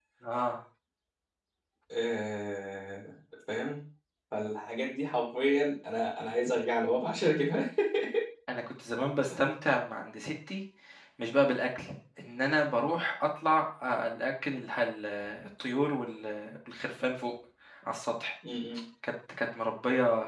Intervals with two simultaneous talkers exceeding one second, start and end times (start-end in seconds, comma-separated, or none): none